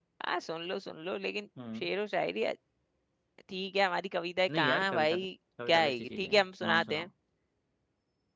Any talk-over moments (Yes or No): Yes